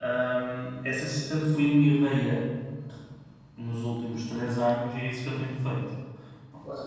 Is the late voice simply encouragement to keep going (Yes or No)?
No